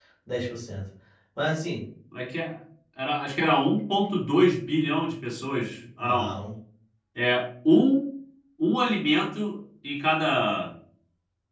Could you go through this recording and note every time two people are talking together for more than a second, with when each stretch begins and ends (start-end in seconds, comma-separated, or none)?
none